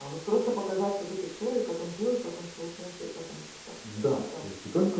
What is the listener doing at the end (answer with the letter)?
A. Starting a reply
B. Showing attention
A